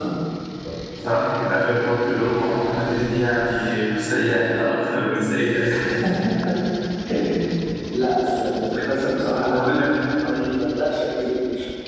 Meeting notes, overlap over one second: none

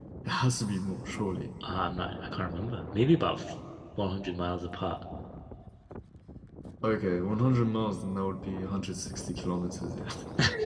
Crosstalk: none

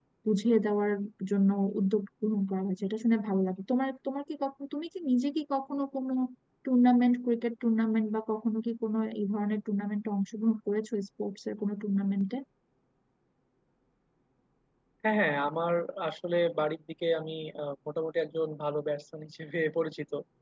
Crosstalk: none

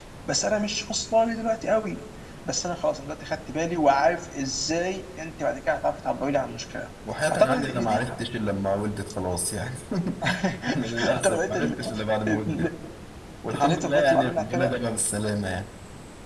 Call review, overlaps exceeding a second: present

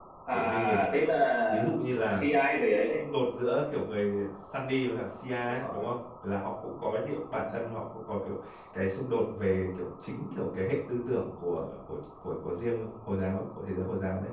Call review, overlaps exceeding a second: none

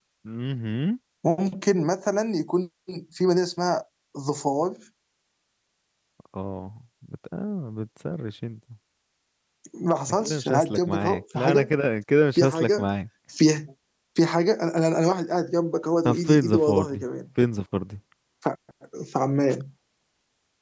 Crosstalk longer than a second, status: present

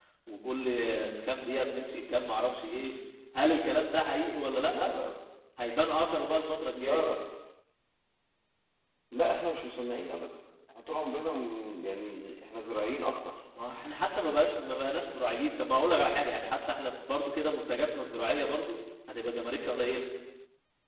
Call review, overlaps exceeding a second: none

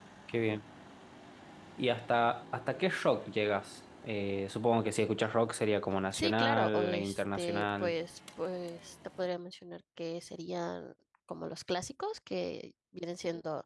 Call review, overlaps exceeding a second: present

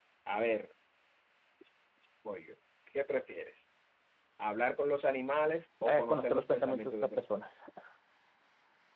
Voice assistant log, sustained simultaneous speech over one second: present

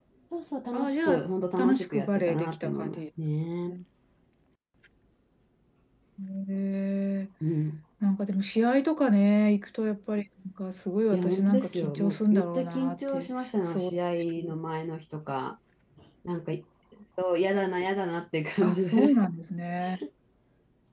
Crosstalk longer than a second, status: present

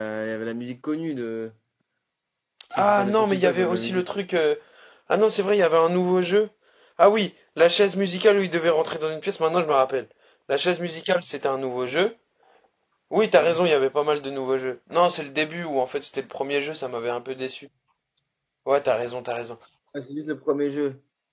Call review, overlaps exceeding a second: present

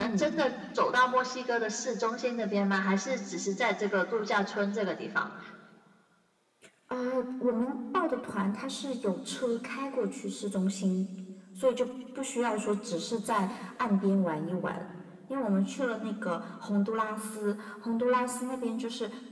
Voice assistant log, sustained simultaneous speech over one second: none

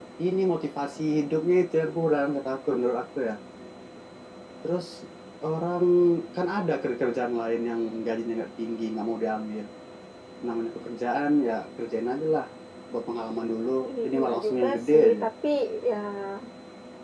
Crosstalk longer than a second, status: present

